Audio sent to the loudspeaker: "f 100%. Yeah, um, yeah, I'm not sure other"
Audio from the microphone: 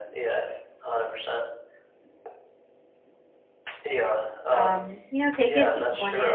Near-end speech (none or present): present